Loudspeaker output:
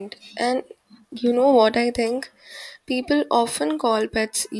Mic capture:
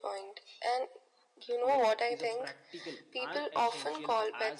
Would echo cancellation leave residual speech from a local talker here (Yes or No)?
Yes